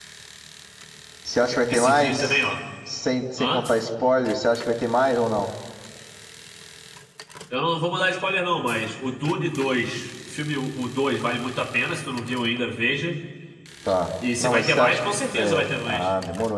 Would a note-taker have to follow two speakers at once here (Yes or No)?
Yes